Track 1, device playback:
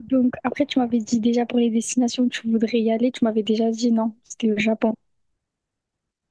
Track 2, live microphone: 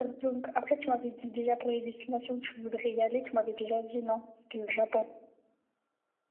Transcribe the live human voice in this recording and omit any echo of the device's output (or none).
none